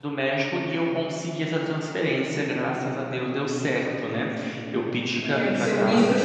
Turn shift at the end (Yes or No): Yes